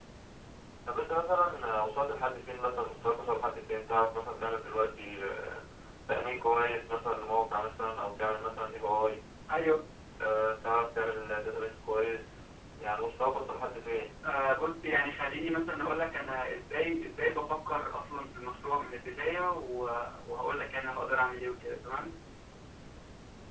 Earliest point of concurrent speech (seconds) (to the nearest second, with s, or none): none